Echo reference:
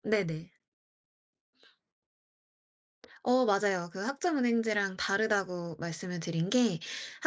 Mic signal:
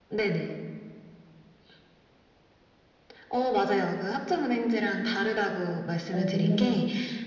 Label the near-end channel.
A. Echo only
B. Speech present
B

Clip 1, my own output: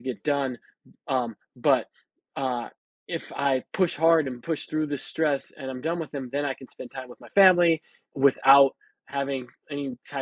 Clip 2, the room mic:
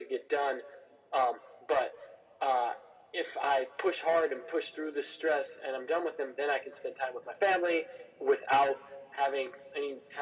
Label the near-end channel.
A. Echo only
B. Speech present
A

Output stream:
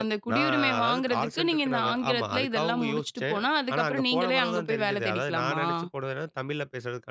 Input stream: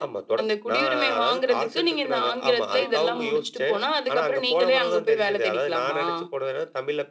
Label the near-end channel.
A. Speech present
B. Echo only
A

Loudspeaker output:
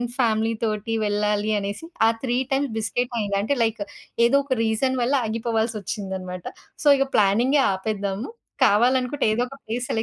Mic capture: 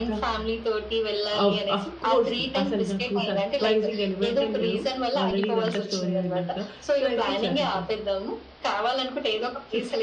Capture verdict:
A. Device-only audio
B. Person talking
B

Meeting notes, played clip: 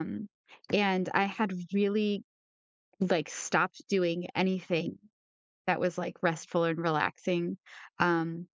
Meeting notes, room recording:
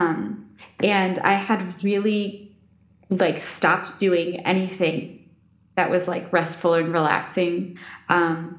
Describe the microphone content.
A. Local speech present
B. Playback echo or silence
B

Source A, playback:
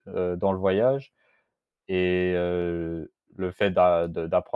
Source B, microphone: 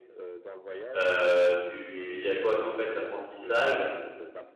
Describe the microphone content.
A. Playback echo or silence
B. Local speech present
B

